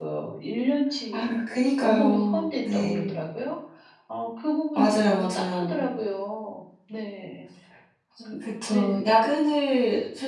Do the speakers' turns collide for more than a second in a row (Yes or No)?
Yes